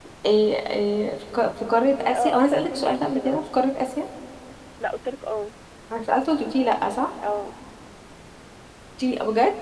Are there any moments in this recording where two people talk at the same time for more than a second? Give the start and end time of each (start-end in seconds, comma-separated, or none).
2.0-3.4